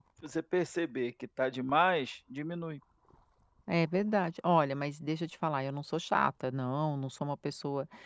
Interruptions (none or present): none